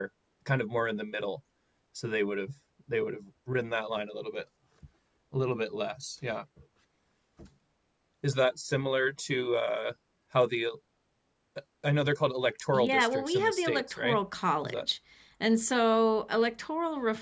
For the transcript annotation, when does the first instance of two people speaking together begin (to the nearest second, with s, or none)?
13 s